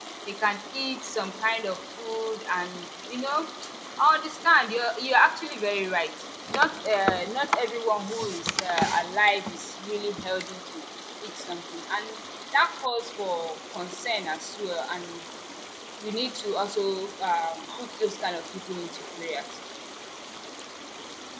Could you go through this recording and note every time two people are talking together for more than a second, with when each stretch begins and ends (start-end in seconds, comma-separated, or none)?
none